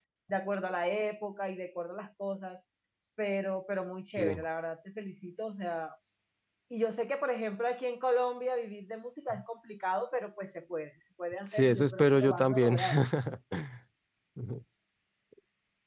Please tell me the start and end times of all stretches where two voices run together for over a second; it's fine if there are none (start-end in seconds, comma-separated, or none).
11.5-12.8